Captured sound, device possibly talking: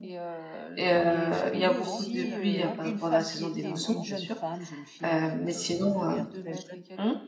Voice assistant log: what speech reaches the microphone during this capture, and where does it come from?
both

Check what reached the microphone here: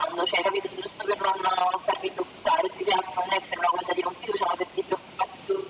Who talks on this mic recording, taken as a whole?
echo only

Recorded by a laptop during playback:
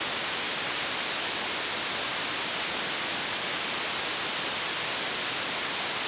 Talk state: neither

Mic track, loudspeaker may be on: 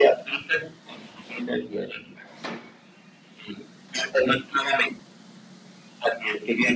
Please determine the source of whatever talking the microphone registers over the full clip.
echo only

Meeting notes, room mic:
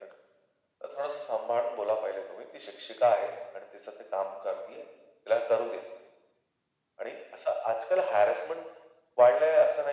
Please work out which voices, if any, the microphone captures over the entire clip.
echo only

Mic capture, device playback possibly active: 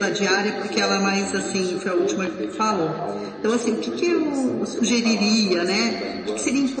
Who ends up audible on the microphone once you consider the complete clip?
both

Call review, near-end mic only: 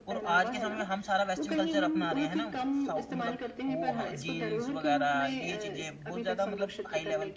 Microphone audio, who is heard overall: both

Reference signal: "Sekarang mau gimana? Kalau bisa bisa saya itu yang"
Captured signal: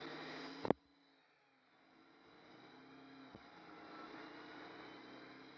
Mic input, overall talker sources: neither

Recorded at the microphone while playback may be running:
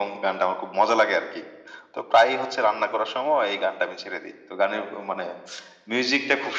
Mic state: echo only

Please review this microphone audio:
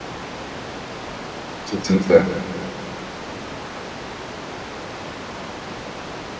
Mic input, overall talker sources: user only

